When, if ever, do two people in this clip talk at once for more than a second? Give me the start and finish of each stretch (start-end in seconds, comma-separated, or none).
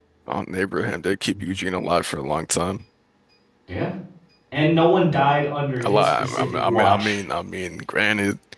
5.8-7.2